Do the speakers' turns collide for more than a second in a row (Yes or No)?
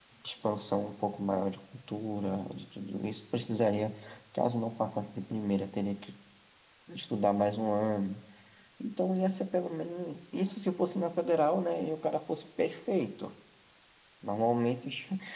No